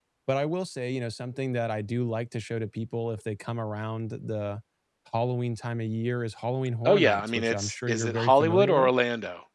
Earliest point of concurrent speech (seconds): 6.8 s

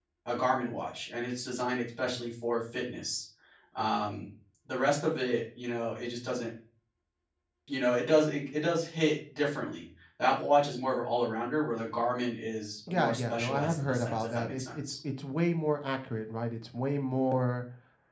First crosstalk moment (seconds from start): 12.9 s

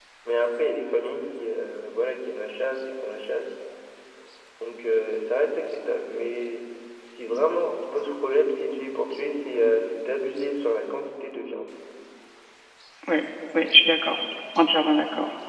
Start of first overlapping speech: none

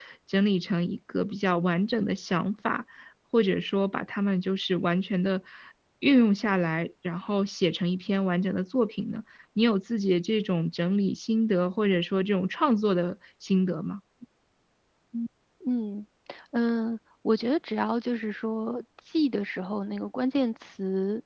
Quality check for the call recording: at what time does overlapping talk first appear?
none

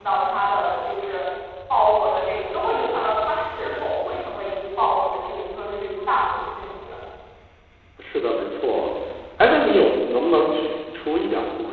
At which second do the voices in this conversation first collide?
none

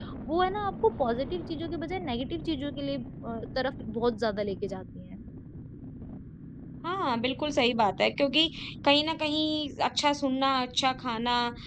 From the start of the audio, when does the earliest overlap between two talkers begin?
none

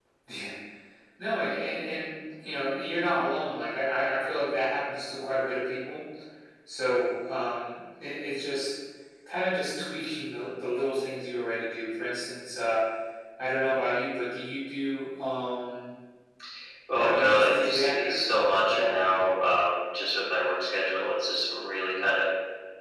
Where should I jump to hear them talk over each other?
17.0 s

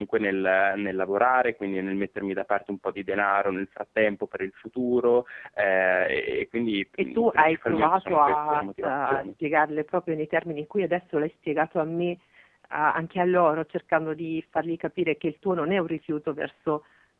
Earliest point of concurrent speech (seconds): 7.2 s

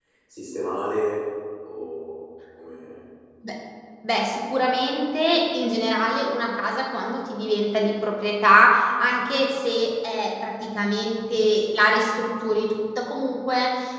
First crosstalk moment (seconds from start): none

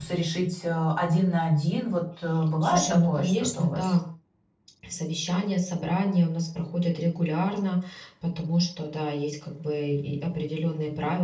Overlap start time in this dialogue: 2.6 s

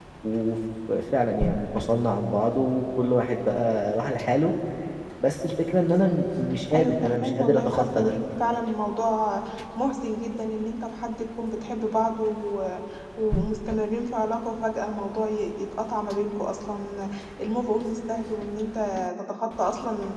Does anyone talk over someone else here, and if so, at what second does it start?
6.7 s

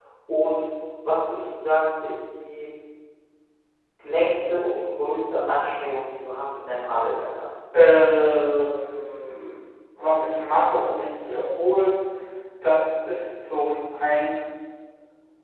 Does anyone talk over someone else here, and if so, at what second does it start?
none

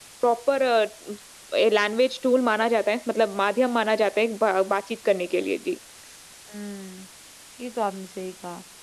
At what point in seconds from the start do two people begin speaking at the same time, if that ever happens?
none

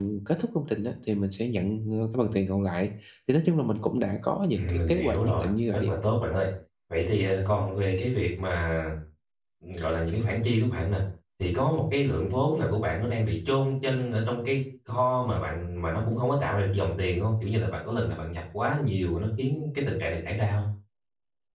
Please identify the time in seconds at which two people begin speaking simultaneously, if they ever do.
4.5 s

